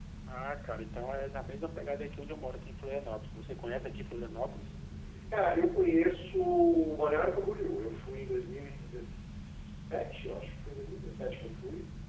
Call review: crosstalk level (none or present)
none